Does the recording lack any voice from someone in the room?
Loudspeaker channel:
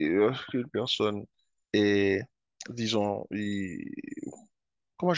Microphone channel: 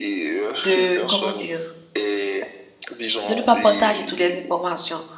No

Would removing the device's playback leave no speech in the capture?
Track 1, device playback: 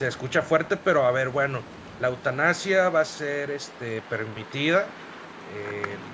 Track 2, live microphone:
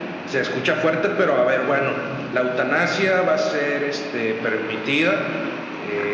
Yes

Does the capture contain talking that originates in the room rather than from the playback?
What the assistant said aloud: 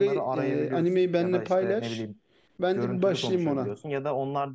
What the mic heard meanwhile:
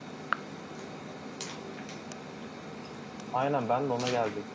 Yes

